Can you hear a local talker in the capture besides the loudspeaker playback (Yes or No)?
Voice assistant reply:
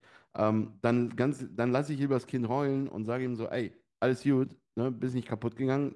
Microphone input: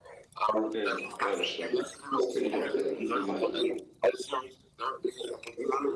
Yes